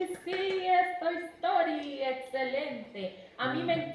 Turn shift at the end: No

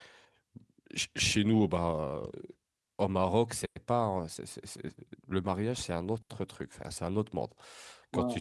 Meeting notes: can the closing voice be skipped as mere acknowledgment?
Yes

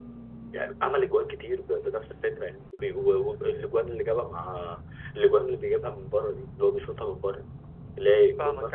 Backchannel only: No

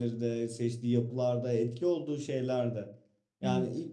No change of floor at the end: Yes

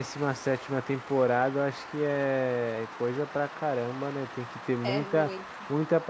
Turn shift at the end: No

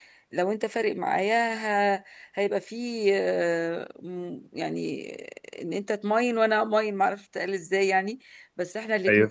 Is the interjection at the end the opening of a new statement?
No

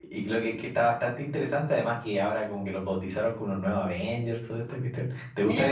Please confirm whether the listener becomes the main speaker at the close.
Yes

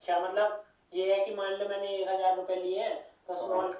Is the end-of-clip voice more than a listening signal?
No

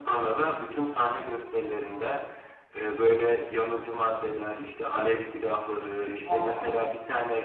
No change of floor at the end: Yes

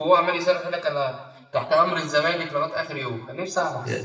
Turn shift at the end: Yes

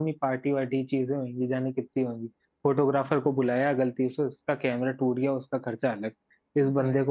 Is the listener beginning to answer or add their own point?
No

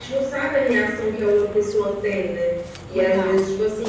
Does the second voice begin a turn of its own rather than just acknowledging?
No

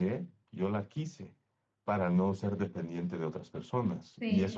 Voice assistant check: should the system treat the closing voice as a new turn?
No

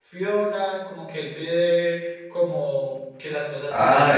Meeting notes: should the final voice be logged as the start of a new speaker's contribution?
Yes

